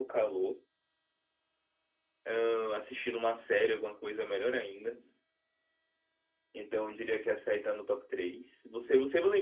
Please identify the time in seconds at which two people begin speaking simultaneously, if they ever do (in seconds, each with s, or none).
none